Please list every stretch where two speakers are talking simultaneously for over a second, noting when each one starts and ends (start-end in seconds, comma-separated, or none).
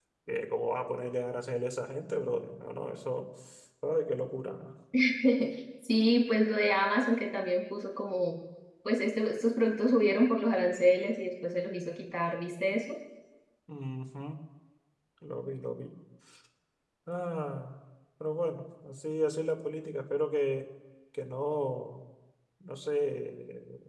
none